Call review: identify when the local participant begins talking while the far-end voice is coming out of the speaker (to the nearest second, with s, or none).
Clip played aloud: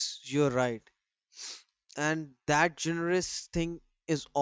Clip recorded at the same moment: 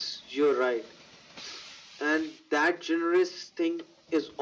none